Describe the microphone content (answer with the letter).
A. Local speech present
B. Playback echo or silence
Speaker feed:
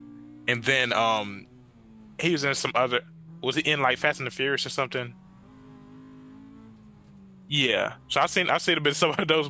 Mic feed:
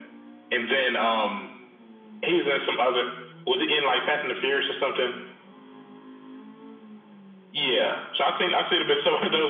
B